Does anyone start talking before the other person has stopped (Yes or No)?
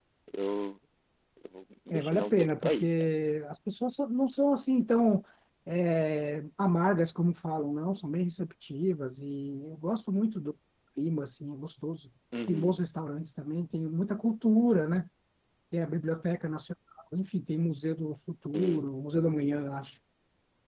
Yes